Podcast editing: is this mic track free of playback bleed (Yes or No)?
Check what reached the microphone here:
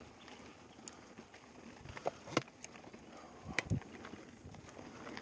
Yes